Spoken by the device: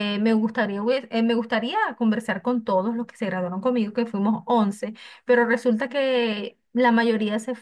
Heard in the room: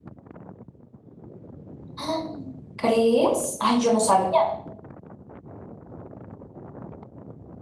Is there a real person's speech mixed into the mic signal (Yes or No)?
Yes